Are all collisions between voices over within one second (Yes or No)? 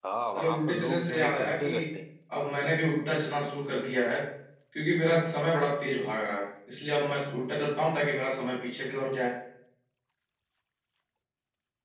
No